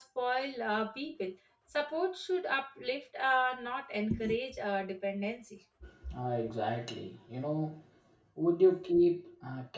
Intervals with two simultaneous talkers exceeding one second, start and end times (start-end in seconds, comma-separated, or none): none